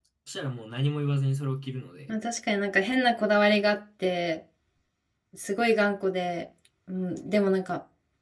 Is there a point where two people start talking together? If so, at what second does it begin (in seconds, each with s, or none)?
none